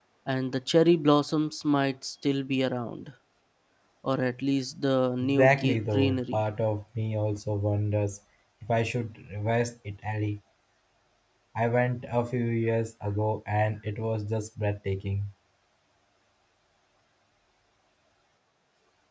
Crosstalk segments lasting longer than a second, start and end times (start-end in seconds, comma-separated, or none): 5.2-6.4